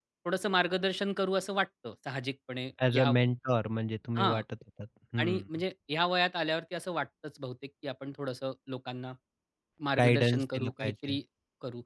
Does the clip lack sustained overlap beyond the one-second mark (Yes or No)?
No